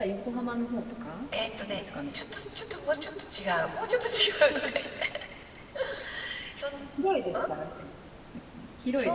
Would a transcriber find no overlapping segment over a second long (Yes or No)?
Yes